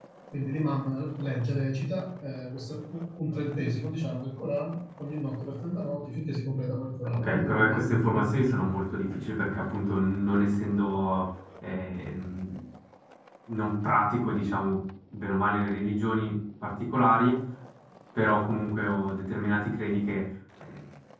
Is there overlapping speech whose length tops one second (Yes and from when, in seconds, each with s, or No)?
Yes, from 7.0 s